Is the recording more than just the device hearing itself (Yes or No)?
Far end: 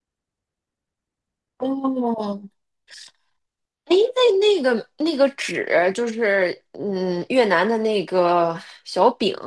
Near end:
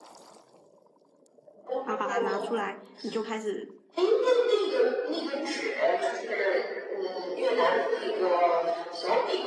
Yes